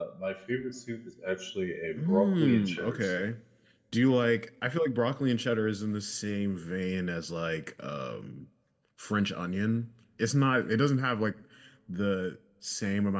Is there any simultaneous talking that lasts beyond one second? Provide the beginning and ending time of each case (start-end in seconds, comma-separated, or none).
2.0-3.2